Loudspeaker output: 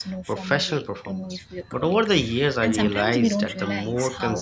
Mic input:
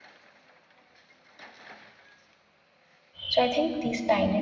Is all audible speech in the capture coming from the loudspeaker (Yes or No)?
No